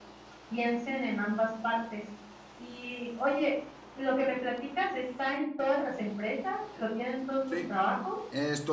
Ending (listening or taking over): taking over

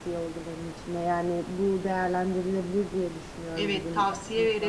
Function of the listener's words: taking over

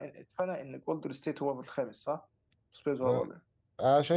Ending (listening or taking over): taking over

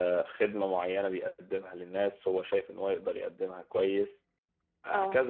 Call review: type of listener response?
listening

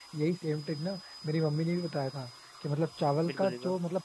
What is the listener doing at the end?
listening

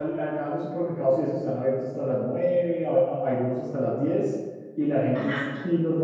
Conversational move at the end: listening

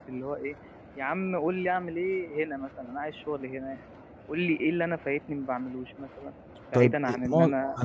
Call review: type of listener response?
taking over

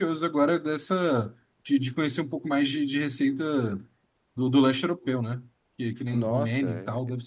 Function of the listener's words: taking over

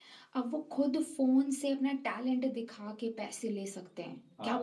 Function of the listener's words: taking over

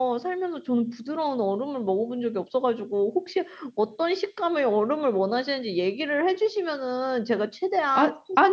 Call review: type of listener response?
taking over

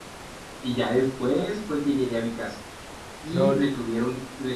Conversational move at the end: listening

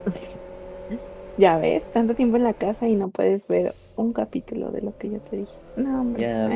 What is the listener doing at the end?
taking over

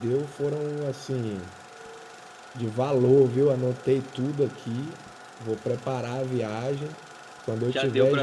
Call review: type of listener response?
taking over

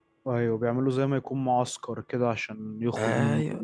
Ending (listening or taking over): taking over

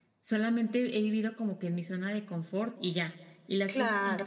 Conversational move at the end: listening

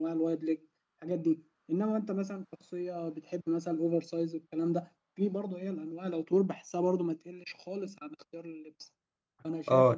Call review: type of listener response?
taking over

